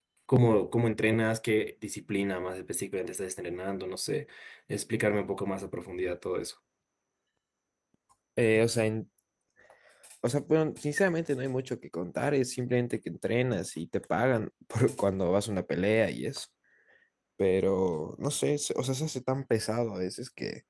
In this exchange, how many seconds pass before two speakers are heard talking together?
none

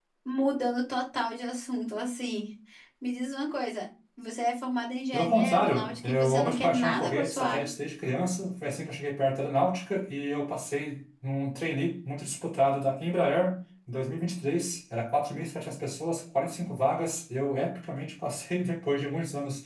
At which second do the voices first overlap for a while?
5.1 s

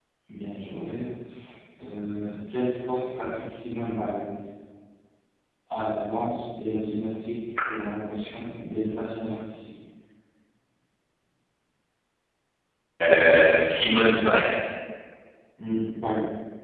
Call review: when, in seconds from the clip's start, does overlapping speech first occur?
none

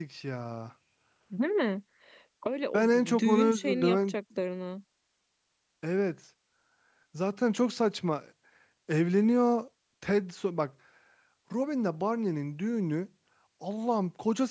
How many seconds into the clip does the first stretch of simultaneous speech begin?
2.7 s

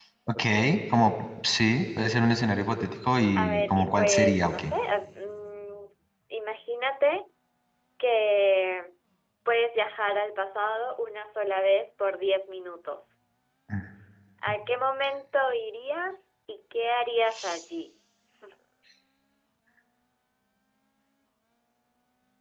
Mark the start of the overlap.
3.4 s

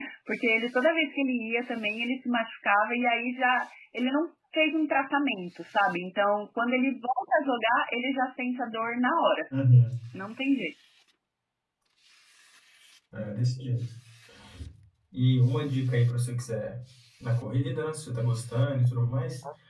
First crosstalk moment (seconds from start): none

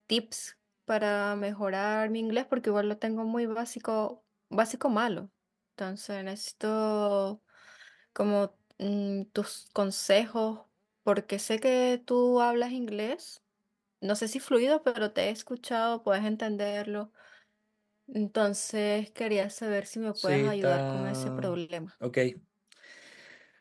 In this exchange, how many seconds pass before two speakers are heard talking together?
20.1 s

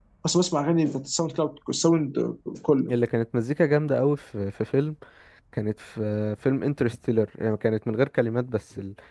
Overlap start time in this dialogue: none

